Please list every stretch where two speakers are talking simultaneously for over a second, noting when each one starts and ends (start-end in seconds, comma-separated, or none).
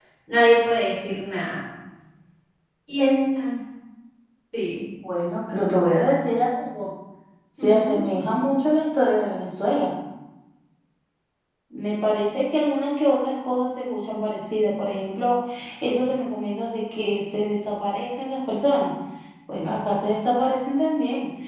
none